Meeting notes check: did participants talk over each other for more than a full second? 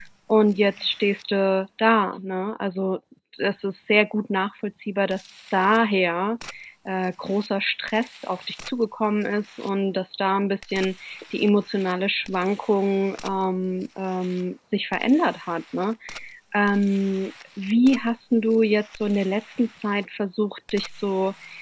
No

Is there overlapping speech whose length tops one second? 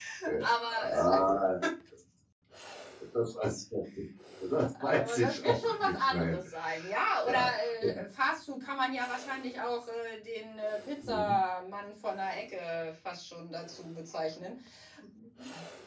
Yes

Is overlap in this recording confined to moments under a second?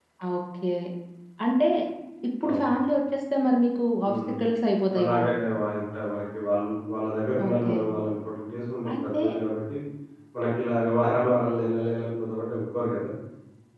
Yes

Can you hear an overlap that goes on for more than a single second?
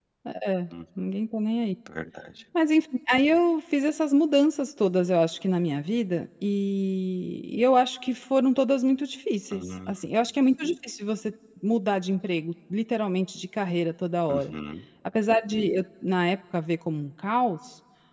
No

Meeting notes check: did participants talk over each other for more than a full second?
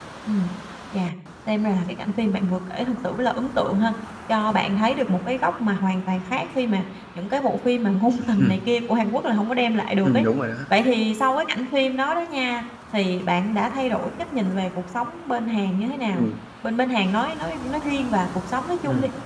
No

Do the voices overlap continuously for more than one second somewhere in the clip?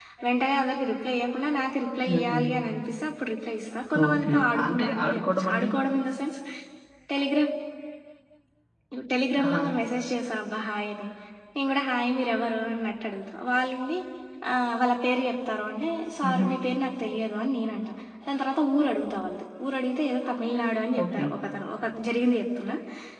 Yes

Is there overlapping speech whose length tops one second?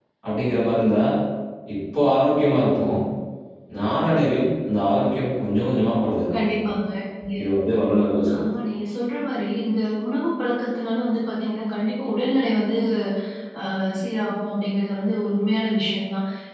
No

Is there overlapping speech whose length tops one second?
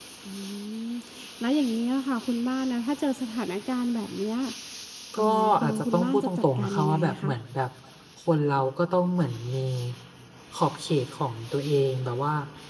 Yes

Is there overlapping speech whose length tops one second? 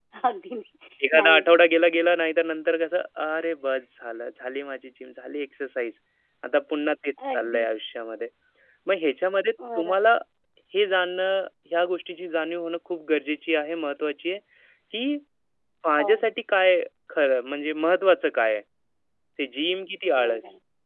No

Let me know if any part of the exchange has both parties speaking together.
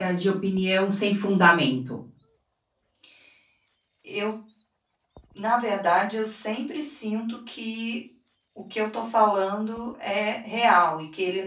No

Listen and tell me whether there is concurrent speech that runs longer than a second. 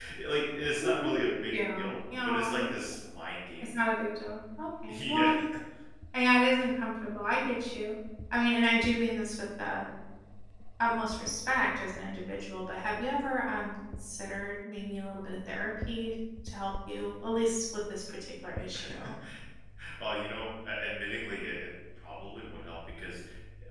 Yes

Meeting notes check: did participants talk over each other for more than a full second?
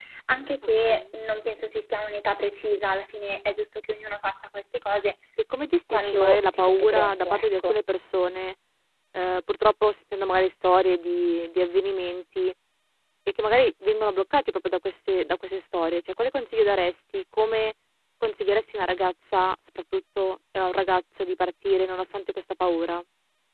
Yes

